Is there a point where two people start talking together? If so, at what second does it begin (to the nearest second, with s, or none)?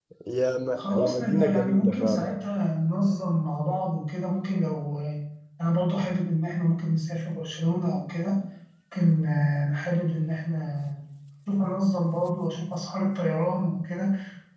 1 s